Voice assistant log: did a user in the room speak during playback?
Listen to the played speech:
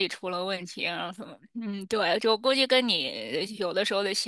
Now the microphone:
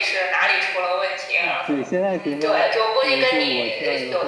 Yes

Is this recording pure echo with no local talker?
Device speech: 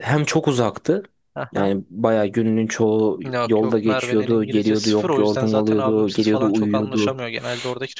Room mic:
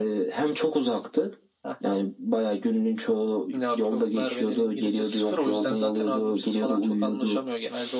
Yes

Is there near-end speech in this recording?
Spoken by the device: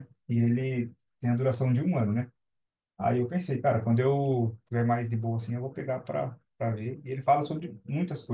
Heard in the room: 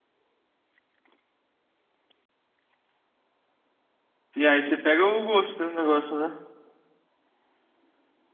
Yes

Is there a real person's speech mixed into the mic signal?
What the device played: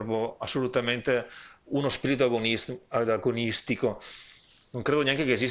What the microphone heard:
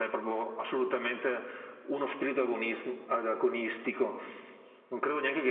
No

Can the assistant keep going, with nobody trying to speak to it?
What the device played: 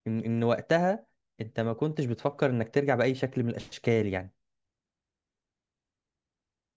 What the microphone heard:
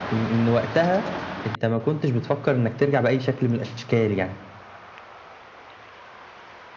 Yes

